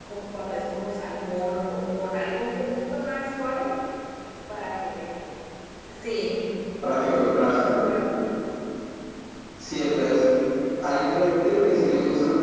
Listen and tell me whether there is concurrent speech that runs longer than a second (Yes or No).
No